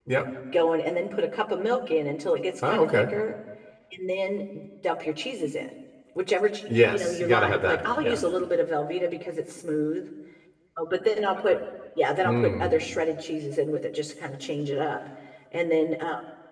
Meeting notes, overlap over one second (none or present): present